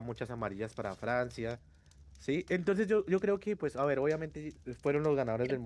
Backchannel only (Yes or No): No